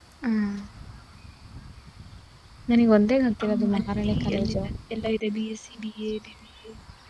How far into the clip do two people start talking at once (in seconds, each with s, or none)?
3.4 s